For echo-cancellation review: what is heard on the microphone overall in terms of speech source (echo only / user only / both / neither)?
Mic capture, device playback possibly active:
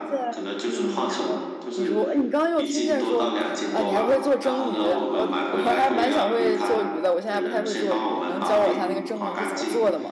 both